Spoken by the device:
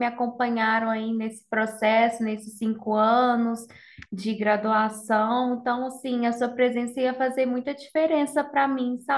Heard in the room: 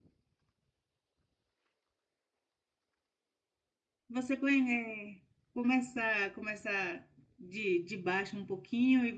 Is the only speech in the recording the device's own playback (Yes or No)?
No